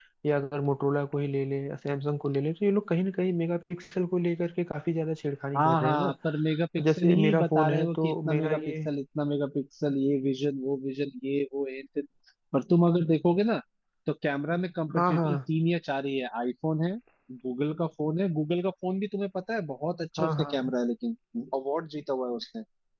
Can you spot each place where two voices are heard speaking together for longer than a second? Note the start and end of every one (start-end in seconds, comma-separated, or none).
6.8-8.7